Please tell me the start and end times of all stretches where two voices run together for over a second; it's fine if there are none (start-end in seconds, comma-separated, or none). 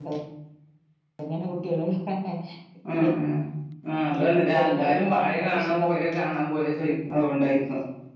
4.1-5.9